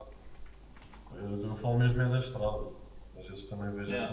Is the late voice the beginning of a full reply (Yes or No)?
No